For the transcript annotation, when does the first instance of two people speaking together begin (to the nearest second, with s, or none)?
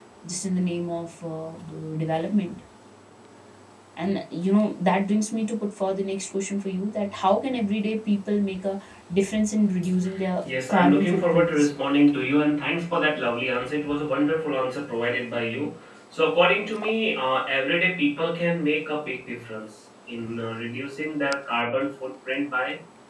10 s